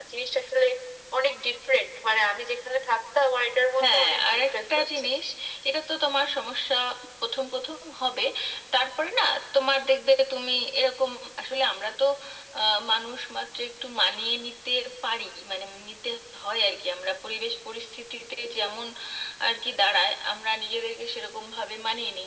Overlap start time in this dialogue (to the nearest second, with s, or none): 4 s